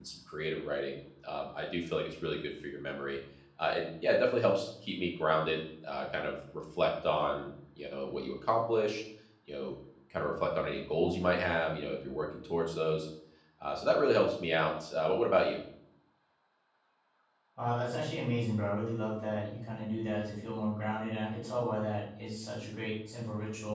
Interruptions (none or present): none